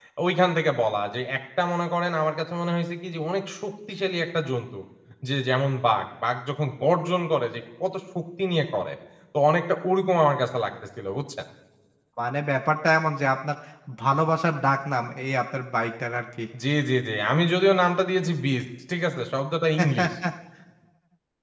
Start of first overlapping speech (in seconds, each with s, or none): none